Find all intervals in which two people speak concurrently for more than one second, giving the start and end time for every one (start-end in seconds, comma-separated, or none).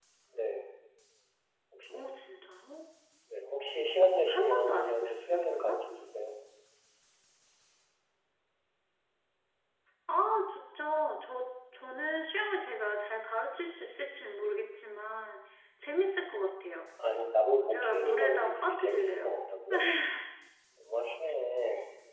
4.3-5.8, 17.7-19.4